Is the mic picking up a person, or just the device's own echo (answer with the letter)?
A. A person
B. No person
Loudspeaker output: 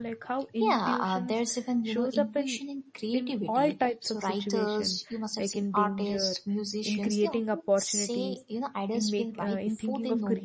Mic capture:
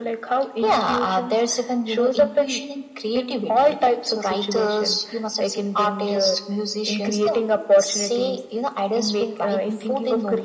B